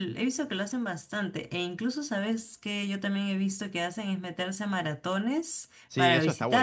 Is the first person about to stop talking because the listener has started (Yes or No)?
Yes